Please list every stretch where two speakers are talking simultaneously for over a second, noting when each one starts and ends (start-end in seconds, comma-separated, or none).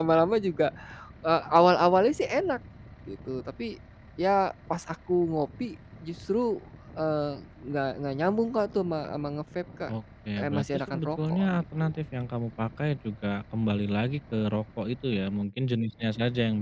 10.4-11.6